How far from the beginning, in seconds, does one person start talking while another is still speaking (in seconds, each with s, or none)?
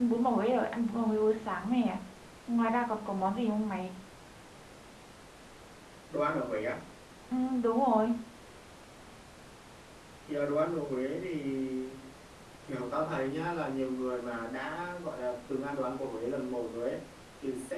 none